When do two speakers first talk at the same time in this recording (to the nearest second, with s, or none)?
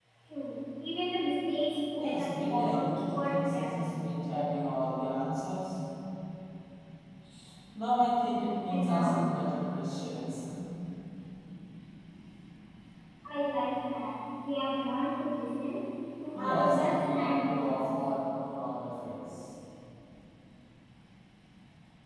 2 s